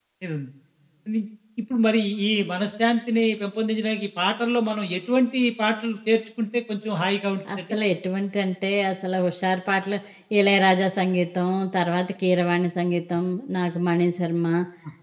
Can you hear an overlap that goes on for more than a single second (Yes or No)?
No